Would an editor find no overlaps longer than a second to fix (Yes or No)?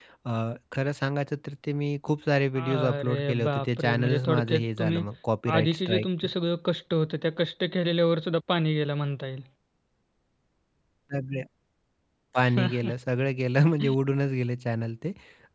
No